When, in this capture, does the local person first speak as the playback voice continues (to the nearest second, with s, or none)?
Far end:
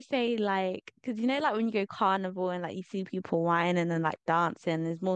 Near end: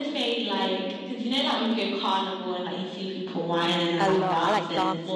4 s